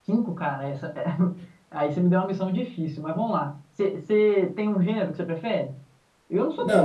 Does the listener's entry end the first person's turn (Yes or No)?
Yes